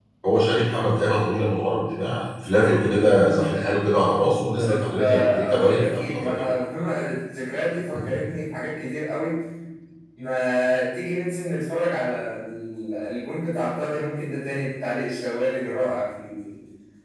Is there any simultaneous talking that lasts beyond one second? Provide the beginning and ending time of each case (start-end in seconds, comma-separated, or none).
4.6-6.5